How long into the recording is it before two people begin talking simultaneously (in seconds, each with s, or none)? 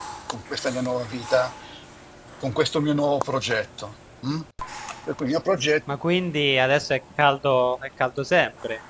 none